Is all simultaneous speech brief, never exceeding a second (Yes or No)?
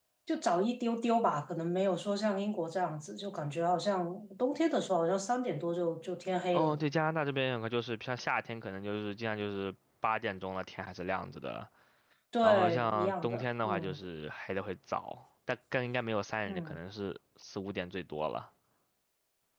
No